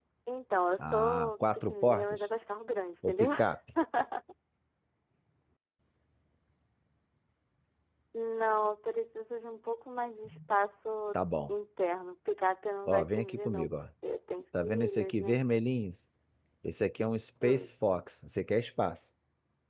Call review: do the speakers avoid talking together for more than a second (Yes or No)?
No